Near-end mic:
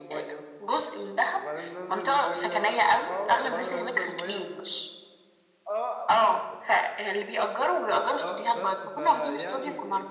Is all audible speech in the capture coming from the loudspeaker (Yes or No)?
No